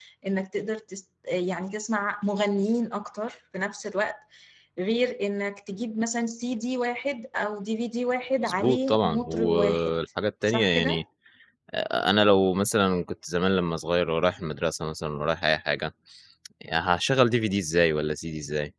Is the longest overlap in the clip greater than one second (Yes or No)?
Yes